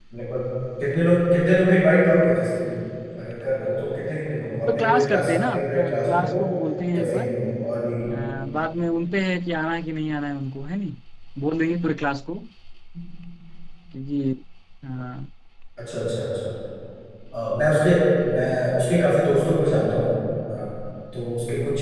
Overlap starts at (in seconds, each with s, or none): 4.7 s